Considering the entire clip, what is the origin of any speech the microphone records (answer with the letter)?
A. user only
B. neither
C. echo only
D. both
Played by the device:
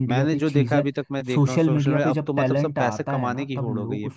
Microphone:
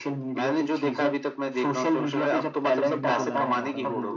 D